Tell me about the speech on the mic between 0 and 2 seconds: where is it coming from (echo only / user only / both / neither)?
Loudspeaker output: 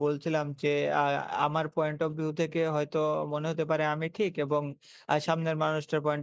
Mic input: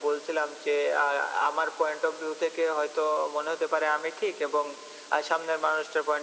echo only